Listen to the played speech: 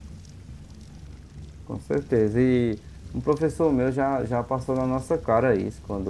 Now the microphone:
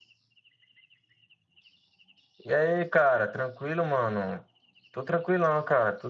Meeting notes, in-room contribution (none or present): present